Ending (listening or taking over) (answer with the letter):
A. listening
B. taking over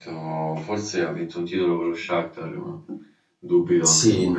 B